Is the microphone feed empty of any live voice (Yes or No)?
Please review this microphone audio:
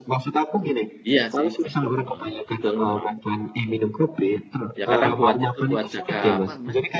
No